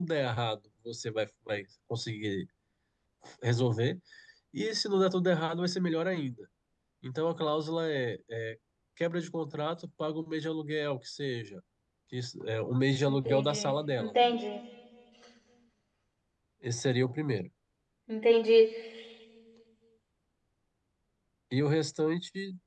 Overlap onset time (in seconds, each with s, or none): 13.1 s